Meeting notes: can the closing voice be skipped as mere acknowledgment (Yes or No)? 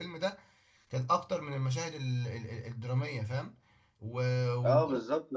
No